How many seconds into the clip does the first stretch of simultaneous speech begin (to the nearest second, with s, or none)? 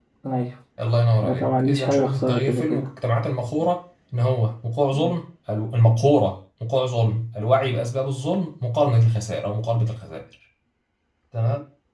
1 s